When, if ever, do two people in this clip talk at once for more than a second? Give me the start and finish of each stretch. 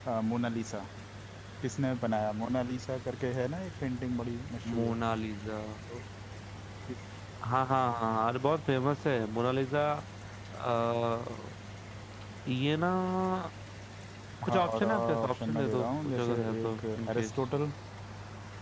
14.5-17.3

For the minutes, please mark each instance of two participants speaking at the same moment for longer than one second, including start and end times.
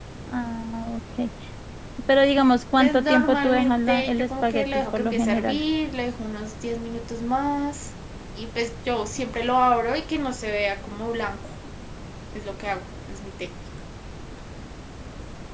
2.8-5.6

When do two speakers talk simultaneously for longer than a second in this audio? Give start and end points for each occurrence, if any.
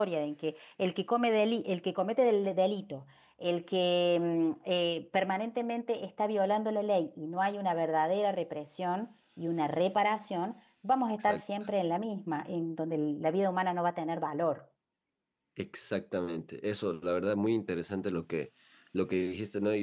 none

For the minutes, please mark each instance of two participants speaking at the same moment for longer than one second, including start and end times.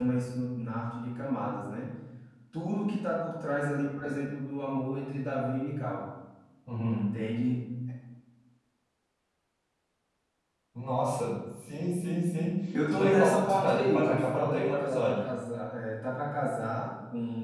12.9-15.3

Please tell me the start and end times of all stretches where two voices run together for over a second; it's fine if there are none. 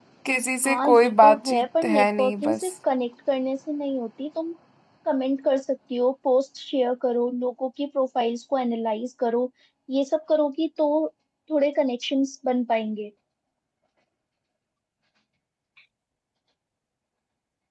0.6-2.7

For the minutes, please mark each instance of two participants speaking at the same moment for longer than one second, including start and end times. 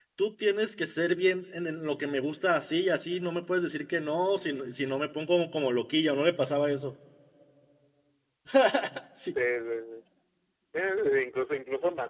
none

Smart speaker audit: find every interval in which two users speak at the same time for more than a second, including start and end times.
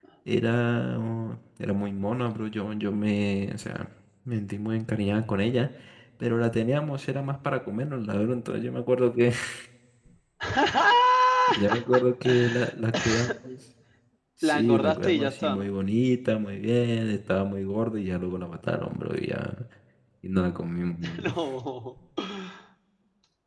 14.4-15.7

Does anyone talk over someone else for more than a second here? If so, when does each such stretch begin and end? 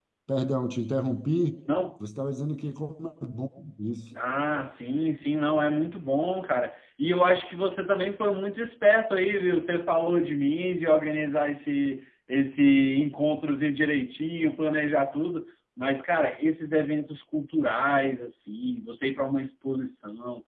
none

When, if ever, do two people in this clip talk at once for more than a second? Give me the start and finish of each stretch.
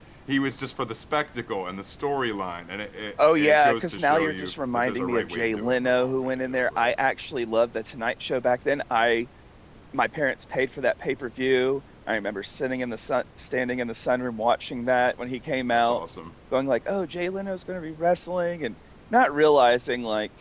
3.4-6.9

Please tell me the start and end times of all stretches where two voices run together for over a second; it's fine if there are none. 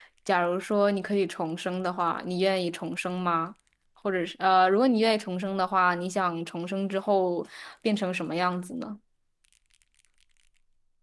none

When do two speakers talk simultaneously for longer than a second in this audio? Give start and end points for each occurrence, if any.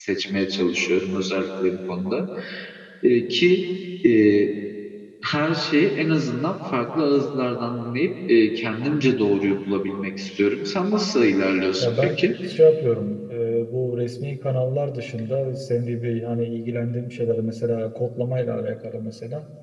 none

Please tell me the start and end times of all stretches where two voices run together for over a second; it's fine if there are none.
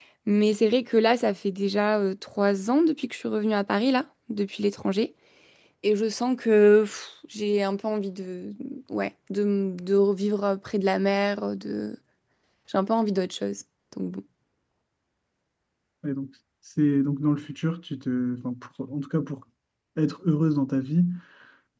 none

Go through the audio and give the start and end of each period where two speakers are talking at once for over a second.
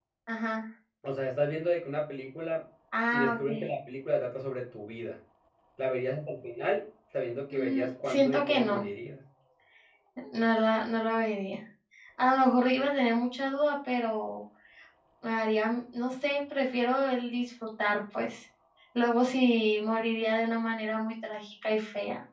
7.5-8.8

